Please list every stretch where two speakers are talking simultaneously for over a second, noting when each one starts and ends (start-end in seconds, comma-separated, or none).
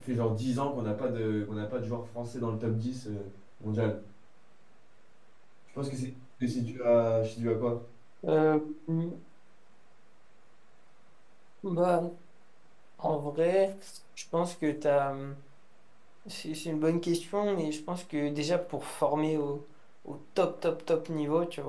none